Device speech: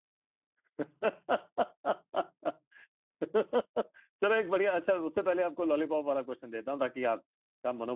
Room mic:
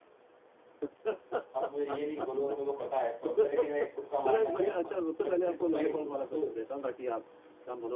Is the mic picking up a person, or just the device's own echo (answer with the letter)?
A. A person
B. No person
A